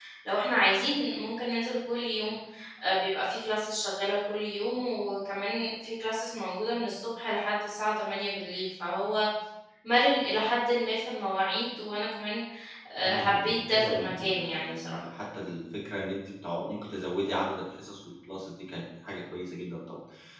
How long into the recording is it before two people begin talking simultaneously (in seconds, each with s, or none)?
13.0 s